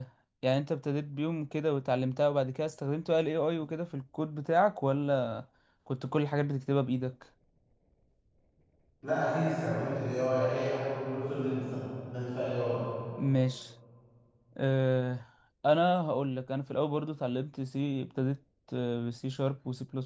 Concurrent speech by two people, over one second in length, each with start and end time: none

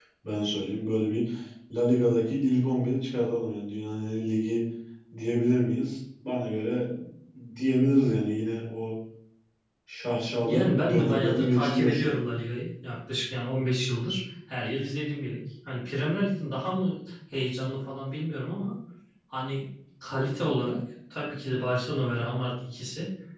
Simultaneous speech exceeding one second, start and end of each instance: 10.5-12.1

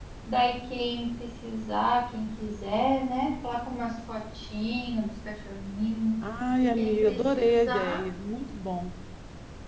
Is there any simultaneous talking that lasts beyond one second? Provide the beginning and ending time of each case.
6.8-8.0

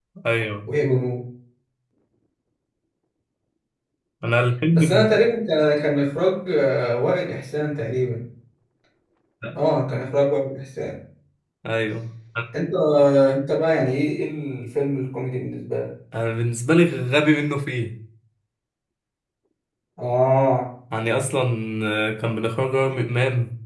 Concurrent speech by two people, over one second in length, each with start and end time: none

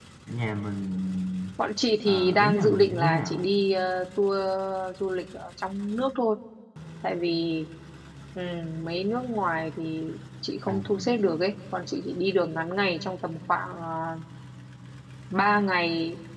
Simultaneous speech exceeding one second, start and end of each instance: 2.0-3.5

